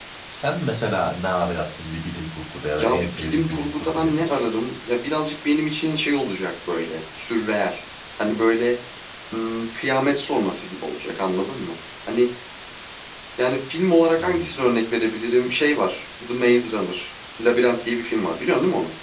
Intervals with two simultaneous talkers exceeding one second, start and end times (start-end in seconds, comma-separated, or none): 2.8-4.4